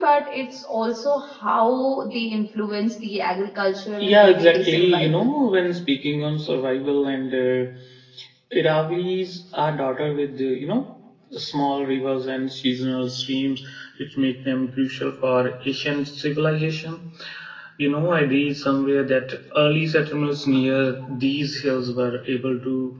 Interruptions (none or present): present